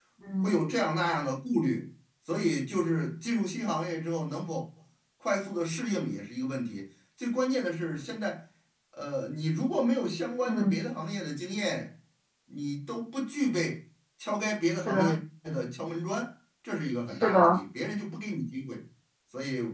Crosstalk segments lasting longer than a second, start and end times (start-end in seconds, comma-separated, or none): none